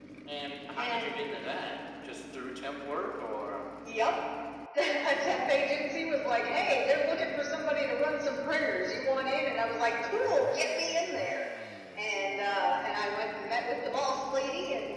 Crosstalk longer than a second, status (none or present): none